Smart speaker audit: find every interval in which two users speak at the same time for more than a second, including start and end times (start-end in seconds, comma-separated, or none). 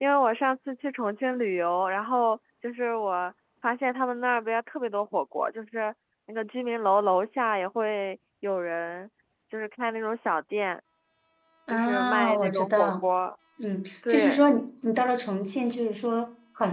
11.7-12.9